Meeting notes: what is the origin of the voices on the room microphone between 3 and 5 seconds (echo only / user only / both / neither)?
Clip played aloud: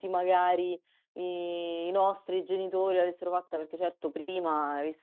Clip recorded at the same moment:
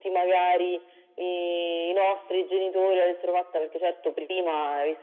echo only